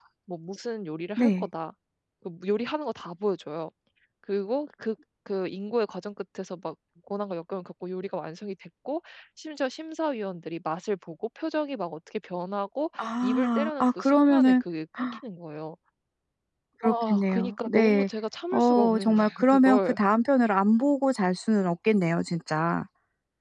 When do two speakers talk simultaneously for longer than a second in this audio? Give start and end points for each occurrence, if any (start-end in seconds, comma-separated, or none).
13.0-14.6, 16.8-18.1, 18.5-20.0